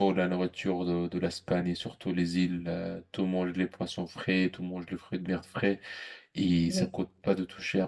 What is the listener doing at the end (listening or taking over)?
listening